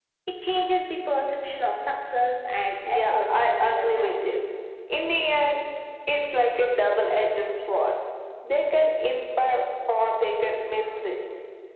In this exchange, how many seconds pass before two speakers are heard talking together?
2.8 s

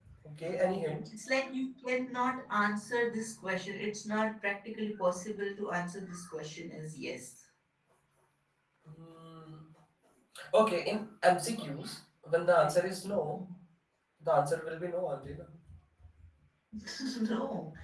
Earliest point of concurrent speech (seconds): none

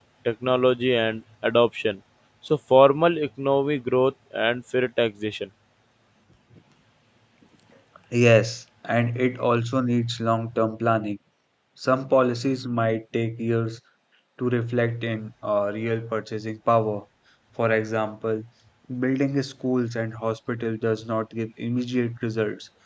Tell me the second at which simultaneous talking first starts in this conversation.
none

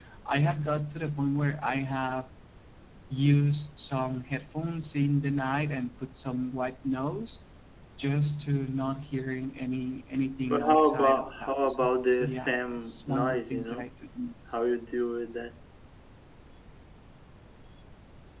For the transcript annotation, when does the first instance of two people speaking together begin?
10.4 s

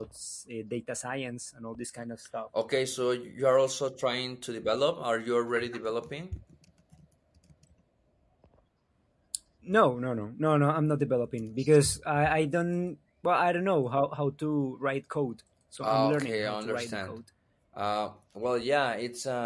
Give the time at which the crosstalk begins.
15.8 s

